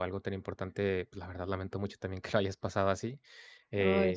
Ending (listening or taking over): listening